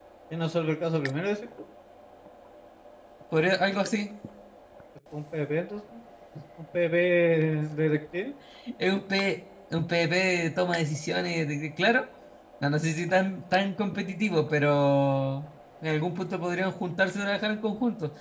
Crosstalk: none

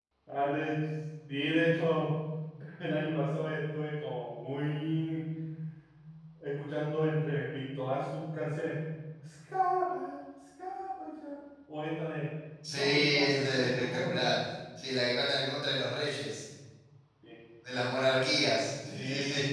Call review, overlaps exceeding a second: present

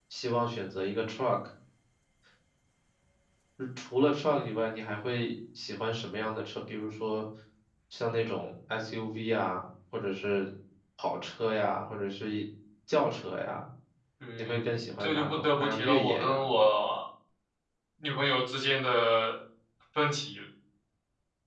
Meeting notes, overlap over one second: present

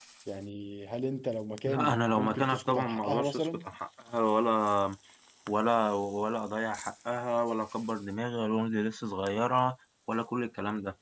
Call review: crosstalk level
present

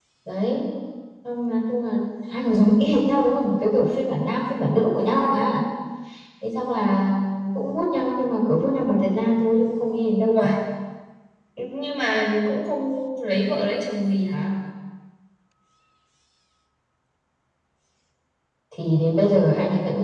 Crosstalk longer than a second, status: none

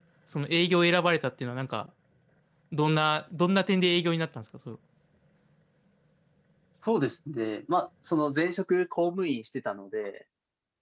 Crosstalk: none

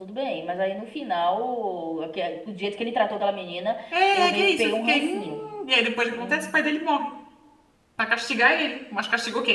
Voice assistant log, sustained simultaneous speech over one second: present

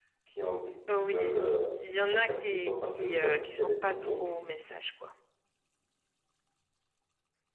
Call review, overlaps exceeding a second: present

